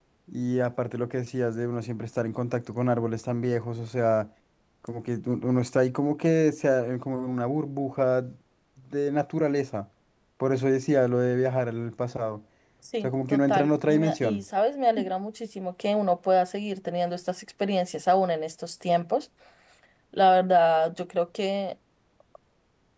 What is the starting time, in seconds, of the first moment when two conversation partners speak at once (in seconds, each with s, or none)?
13.0 s